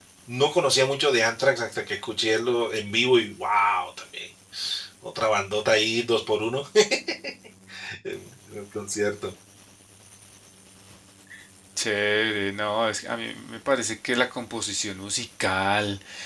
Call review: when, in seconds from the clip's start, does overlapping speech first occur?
none

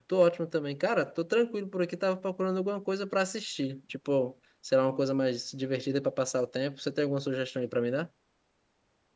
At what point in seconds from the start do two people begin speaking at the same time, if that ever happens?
none

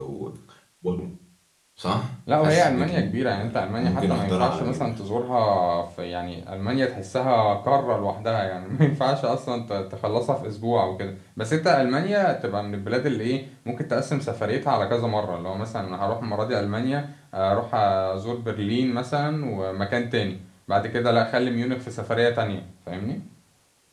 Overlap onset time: 2.4 s

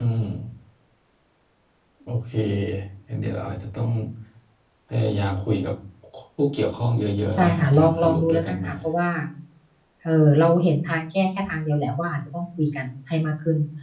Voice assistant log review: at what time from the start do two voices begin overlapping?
7.3 s

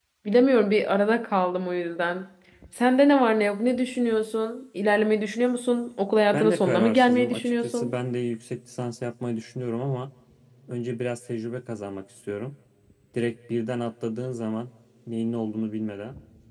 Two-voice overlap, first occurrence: 6.3 s

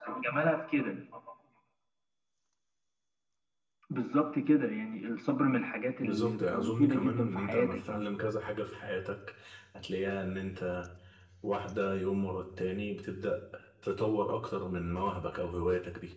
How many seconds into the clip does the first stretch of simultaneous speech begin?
6.0 s

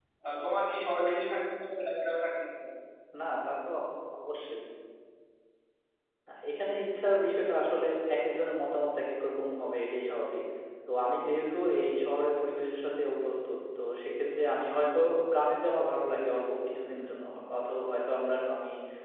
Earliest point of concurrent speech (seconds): none

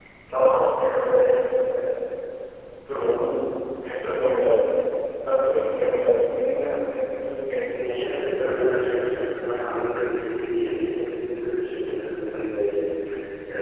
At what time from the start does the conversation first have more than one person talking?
none

